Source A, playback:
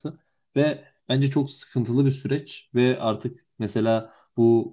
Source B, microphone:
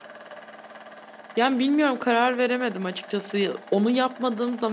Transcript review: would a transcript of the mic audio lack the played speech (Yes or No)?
Yes